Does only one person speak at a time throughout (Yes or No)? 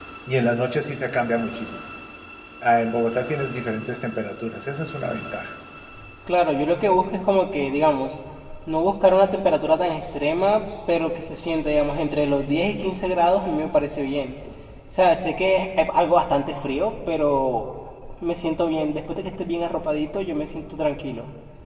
Yes